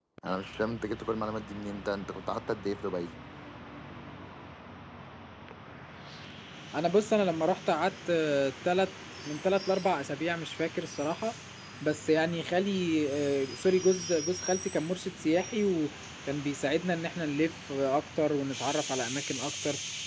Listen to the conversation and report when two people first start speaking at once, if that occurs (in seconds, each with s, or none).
none